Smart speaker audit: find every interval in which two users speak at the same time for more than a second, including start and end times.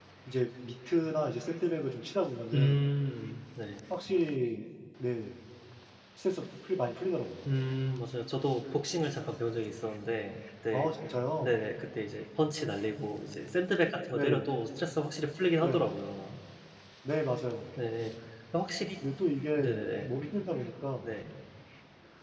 none

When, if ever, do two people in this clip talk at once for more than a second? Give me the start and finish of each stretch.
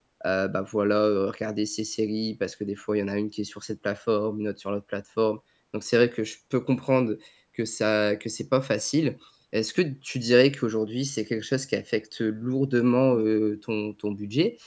none

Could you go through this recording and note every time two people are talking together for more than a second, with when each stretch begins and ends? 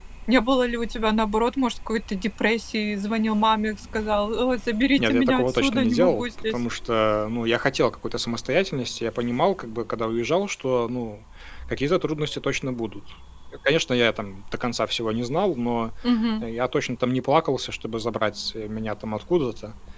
5.0-6.5

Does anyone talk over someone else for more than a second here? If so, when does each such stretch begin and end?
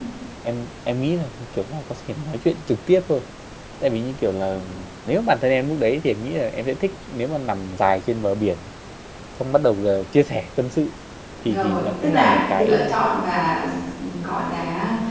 11.4-13.1

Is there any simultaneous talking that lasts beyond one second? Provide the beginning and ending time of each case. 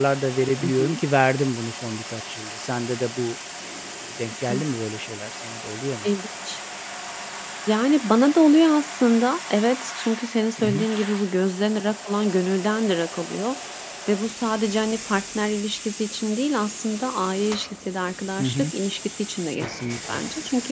none

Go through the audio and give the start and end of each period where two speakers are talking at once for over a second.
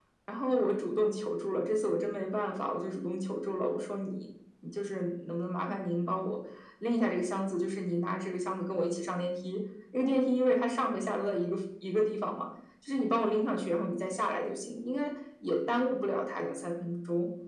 none

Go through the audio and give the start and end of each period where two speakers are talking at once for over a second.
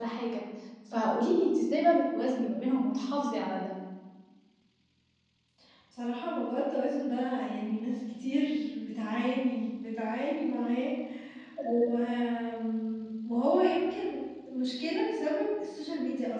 none

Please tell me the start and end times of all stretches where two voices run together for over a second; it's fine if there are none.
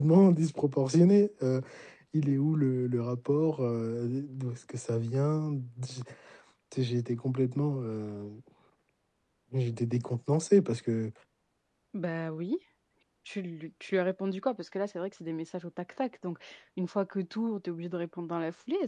none

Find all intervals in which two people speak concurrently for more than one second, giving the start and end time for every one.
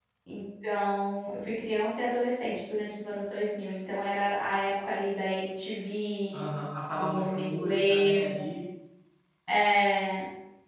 6.9-8.5

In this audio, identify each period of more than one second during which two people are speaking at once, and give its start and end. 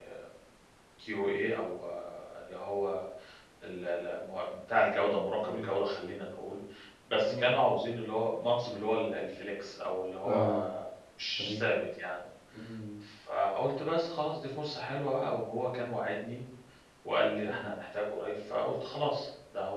none

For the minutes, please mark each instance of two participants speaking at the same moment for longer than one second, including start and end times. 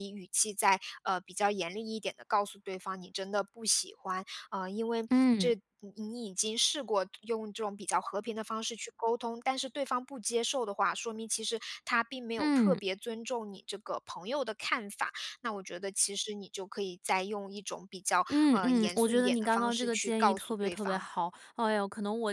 18.3-21.0

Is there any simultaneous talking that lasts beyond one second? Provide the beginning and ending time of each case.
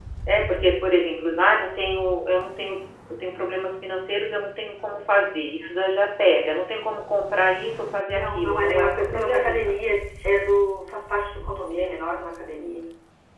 8.1-9.6

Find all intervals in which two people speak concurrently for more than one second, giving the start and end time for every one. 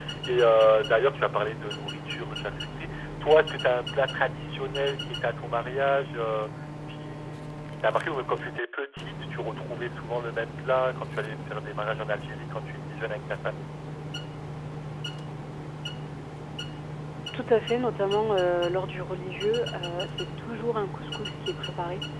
none

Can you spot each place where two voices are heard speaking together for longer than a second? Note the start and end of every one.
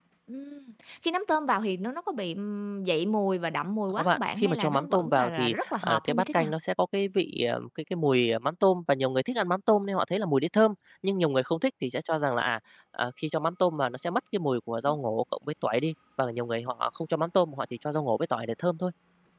3.9-6.5

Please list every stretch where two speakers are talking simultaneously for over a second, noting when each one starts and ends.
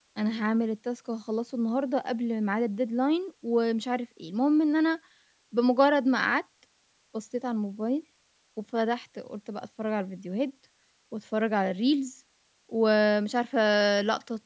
none

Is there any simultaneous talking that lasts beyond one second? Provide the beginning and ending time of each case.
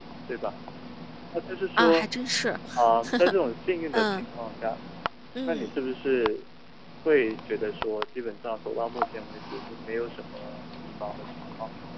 none

